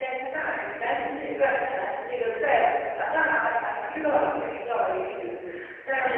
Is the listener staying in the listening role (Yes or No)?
Yes